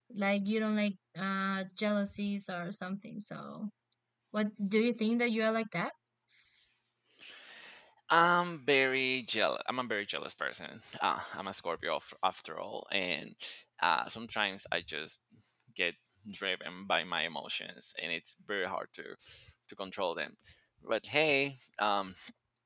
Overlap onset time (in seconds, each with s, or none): none